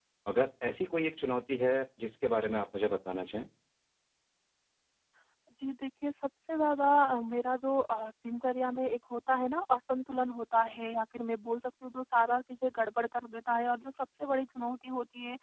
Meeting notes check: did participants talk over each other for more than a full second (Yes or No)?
No